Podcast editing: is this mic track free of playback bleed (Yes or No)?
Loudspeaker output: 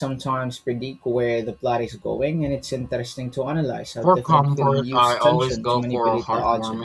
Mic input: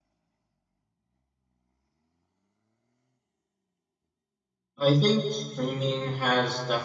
Yes